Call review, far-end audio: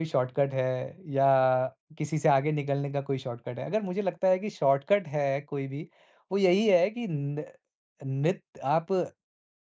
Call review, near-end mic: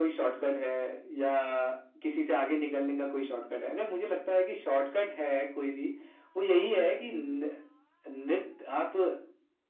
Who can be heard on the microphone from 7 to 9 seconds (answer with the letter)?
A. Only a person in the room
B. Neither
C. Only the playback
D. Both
C